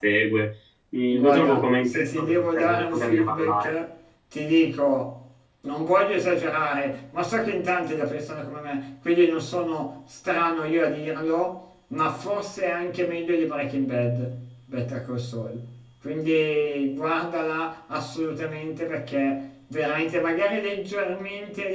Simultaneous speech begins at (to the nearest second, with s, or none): 1 s